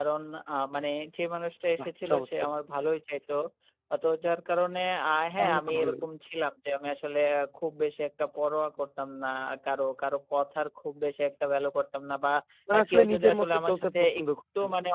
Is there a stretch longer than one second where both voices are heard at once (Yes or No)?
Yes